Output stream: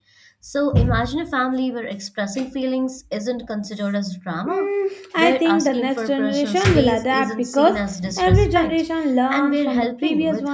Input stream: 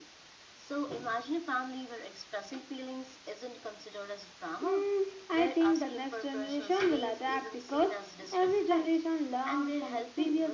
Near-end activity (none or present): none